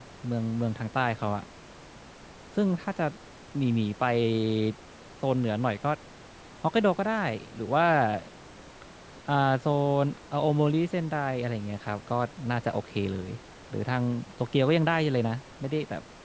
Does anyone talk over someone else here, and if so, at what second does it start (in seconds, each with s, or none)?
none